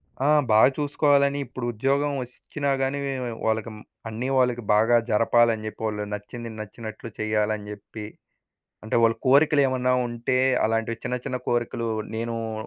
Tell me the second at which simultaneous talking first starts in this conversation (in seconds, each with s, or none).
none